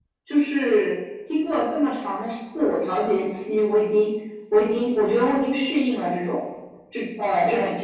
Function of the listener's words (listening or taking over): listening